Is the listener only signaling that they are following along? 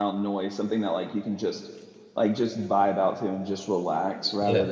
No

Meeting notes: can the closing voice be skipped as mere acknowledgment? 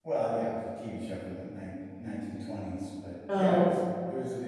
Yes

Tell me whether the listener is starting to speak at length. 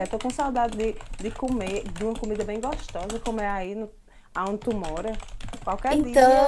No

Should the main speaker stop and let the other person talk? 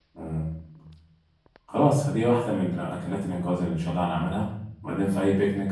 No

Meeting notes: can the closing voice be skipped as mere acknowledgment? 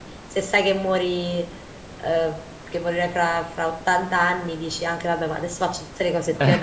No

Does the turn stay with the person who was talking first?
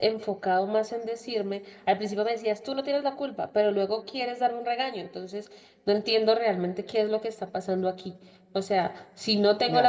No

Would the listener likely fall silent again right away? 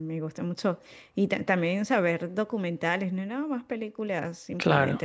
Yes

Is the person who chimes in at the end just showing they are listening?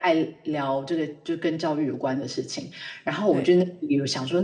Yes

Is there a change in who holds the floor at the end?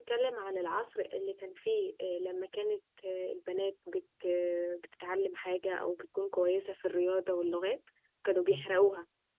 No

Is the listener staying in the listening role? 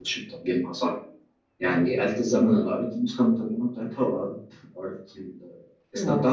Yes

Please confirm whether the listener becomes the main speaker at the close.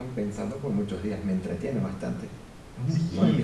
Yes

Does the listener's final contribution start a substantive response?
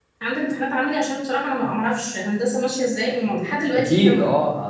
Yes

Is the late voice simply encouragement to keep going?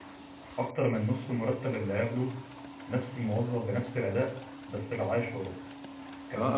No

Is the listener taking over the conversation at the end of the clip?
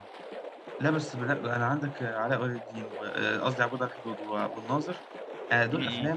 No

